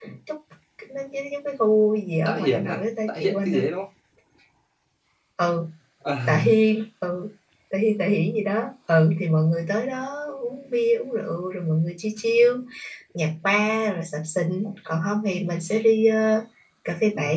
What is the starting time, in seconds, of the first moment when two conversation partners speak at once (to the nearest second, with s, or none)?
2 s